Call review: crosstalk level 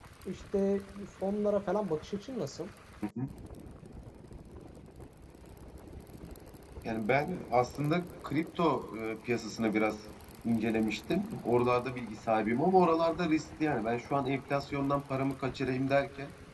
none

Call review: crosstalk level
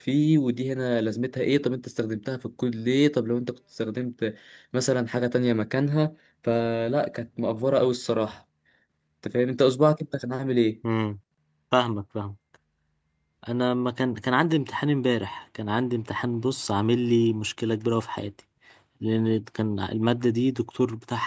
none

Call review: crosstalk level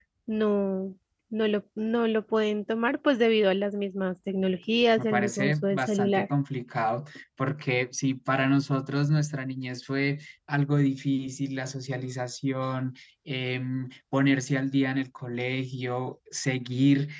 present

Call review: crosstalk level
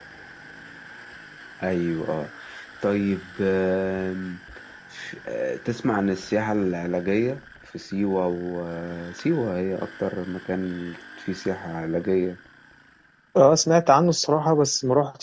none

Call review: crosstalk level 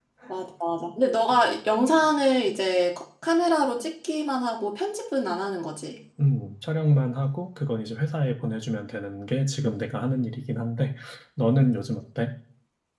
none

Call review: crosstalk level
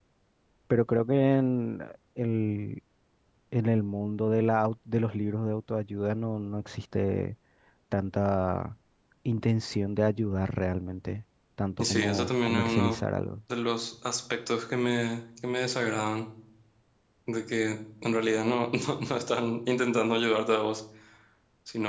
present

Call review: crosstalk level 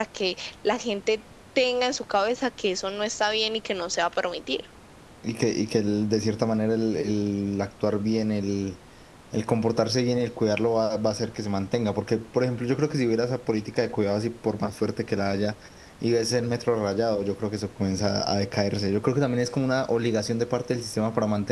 none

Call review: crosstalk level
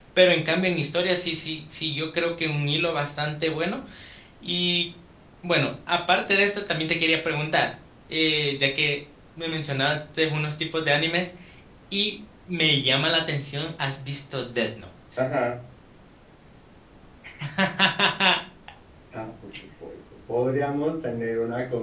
none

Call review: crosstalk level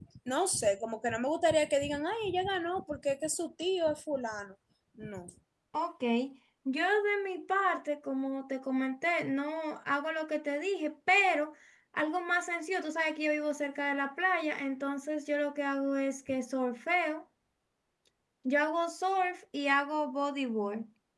none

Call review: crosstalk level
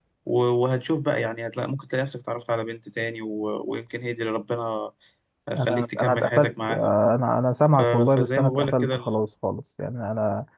present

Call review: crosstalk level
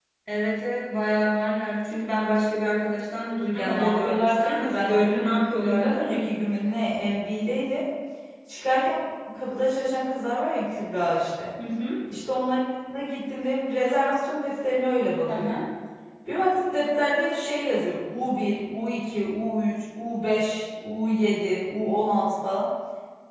present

